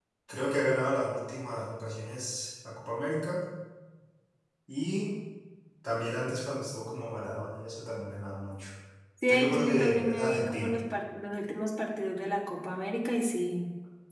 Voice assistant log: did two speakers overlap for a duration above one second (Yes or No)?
Yes